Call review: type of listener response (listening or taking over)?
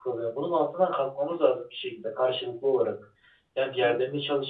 listening